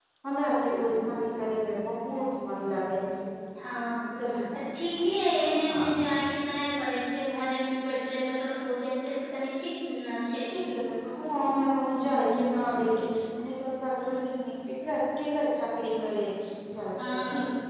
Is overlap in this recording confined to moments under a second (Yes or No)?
Yes